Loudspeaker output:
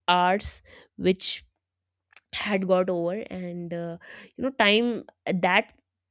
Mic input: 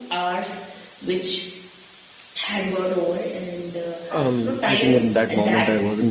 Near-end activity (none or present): present